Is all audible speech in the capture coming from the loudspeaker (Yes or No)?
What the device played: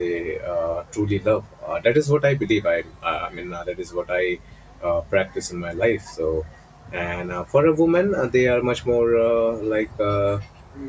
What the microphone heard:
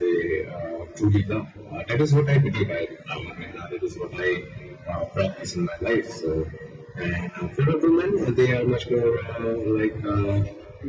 Yes